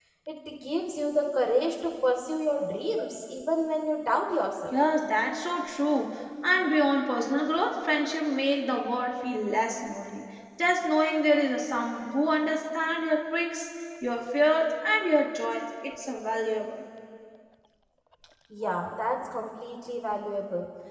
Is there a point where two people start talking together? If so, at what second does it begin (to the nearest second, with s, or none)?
none